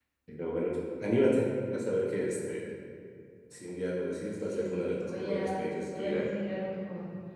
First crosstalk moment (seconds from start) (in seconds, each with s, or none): 4.4 s